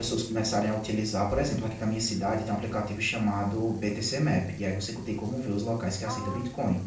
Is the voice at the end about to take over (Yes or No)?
No